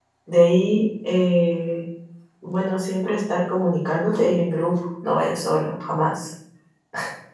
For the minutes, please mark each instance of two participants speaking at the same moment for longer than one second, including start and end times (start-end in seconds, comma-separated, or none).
none